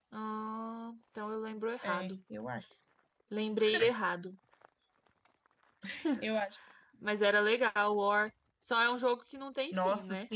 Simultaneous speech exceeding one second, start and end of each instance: none

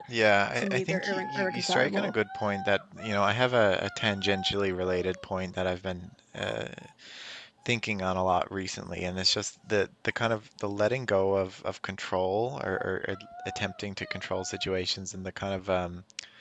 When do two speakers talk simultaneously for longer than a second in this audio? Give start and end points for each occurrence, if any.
0.6-2.1

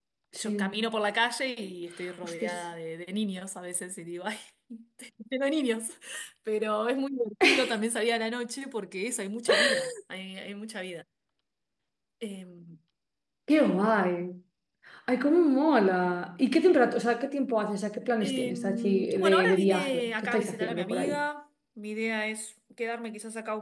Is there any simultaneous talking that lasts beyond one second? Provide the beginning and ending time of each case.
18.2-21.2

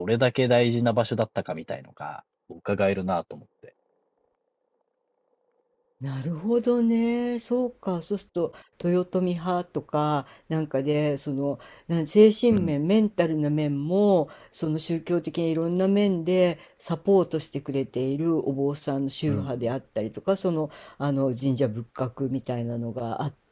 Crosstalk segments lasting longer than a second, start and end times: none

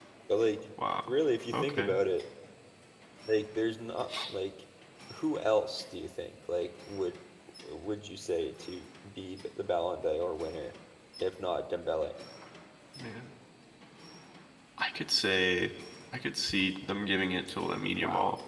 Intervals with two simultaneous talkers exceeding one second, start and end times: none

